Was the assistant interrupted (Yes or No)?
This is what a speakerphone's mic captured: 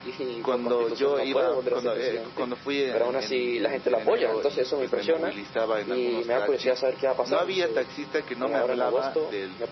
No